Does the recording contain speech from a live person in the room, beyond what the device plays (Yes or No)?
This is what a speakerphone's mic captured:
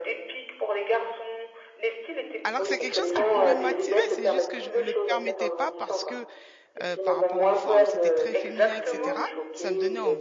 Yes